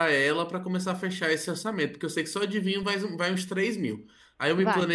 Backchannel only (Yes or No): Yes